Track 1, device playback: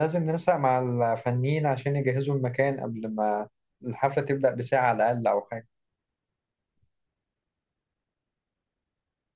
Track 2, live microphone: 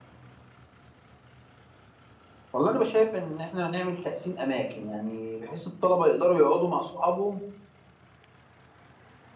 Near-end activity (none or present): present